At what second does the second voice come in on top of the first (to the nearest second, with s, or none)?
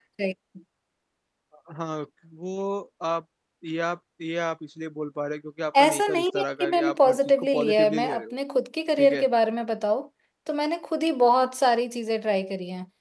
6 s